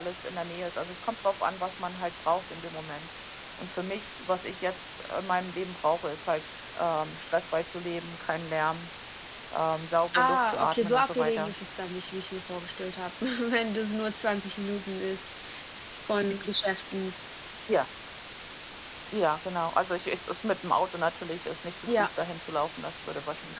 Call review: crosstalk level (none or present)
present